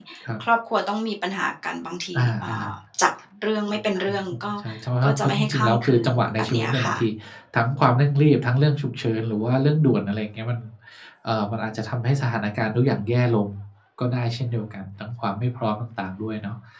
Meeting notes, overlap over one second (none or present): present